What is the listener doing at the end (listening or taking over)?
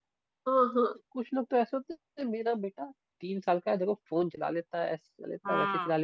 listening